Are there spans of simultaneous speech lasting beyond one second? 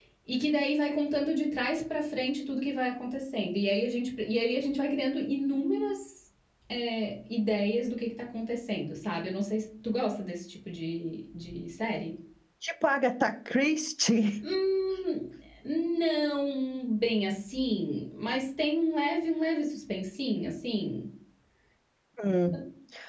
No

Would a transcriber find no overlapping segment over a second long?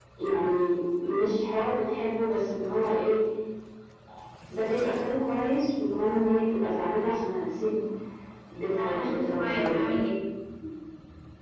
No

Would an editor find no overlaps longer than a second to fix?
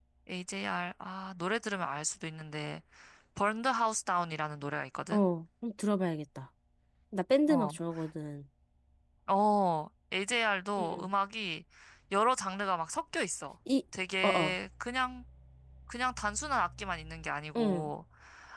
Yes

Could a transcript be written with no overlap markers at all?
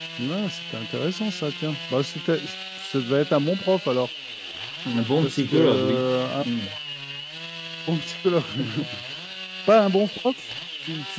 No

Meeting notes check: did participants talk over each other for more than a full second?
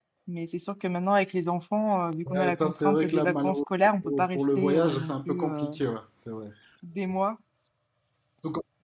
Yes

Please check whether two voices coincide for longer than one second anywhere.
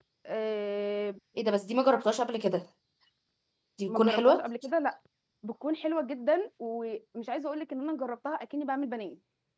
No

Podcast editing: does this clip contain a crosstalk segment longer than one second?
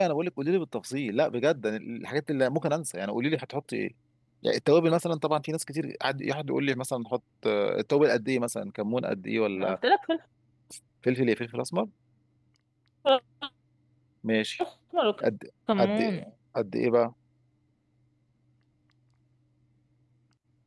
No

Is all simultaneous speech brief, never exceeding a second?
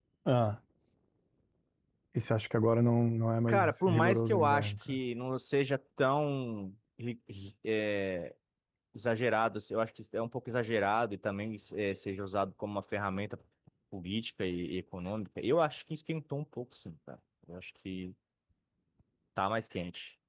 No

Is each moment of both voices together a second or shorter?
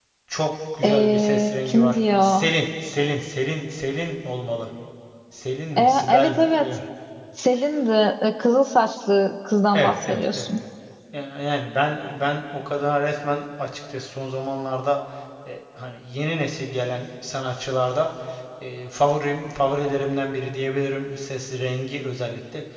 No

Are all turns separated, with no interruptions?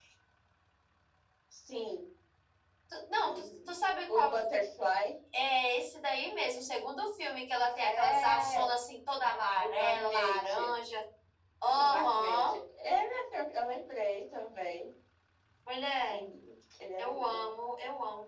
No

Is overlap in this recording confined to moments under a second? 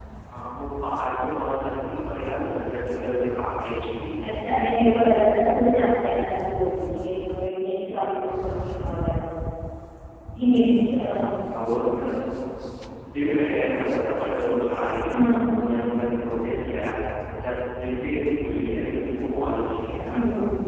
Yes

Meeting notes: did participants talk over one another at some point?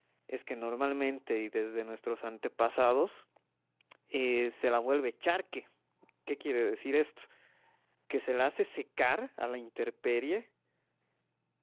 No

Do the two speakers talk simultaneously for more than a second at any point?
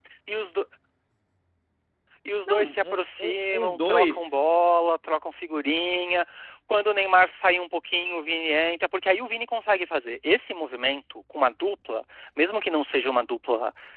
Yes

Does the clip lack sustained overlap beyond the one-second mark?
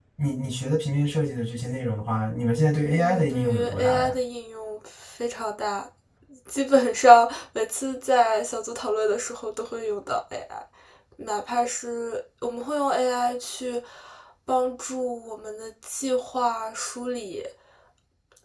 No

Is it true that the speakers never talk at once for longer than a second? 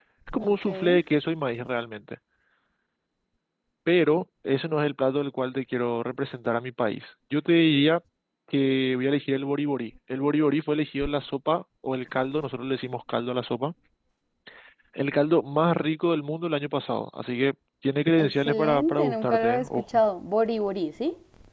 No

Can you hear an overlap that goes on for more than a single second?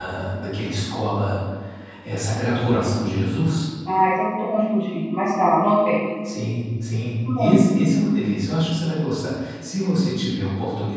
No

